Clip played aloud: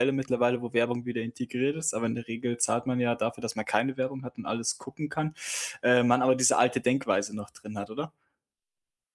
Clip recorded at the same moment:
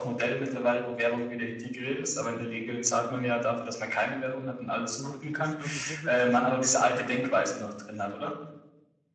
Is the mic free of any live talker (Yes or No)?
No